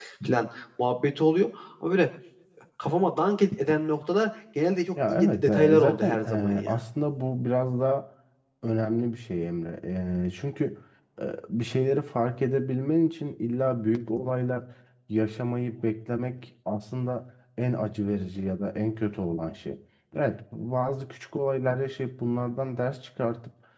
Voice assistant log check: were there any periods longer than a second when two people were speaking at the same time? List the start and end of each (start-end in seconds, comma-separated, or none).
5.1-6.7